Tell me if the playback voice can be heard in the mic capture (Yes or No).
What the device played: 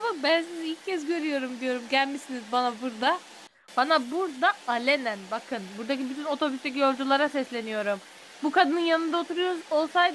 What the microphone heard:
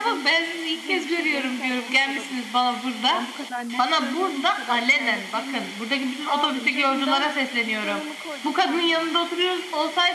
Yes